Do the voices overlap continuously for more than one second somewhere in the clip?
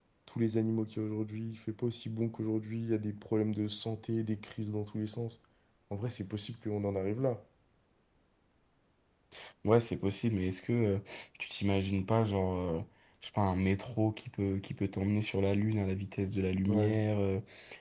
No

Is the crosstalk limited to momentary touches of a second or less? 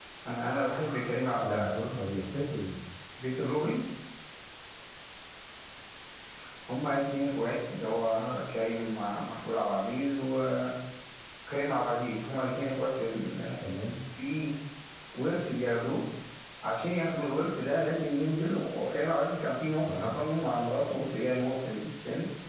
Yes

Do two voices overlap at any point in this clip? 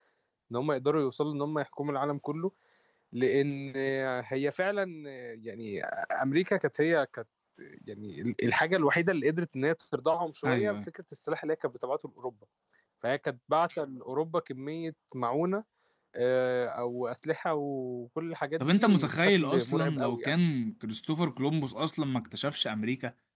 Yes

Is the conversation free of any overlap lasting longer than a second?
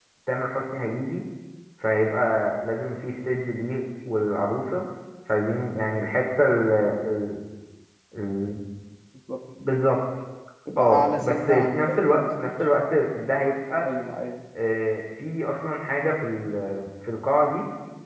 No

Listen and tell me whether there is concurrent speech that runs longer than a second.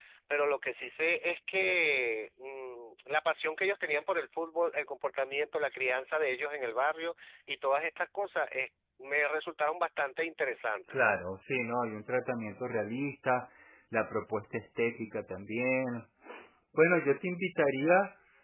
No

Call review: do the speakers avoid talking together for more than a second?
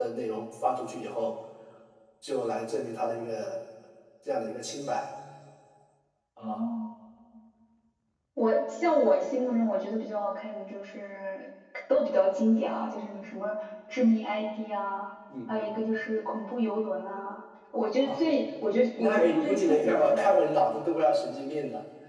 No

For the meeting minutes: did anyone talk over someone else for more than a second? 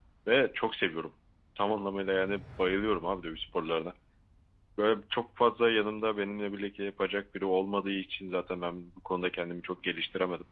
No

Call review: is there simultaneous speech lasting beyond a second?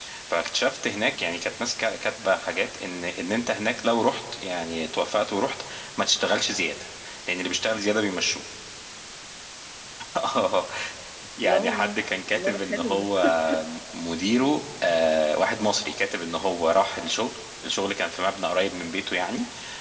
Yes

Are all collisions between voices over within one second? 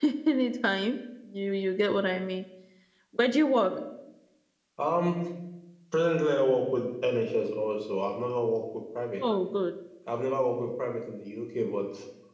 Yes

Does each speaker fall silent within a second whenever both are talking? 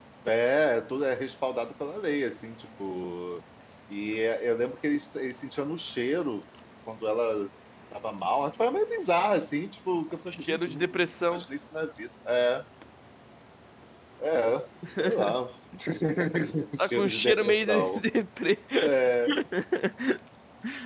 No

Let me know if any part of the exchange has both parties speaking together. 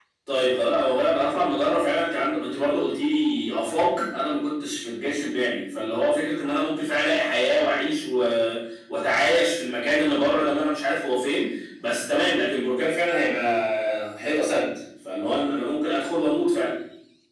No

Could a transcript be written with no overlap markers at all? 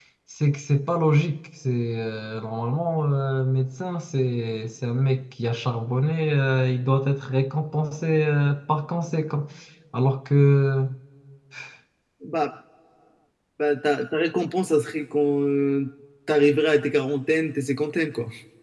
Yes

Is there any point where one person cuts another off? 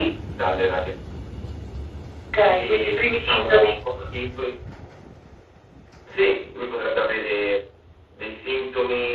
Yes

